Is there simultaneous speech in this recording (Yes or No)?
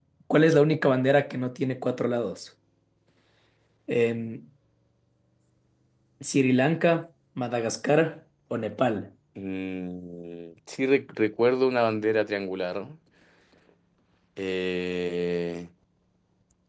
No